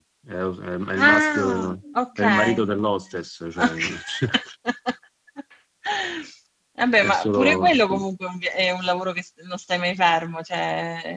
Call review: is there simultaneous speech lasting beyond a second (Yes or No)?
Yes